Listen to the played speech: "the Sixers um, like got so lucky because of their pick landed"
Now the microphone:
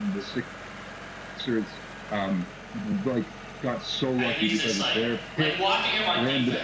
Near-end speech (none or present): present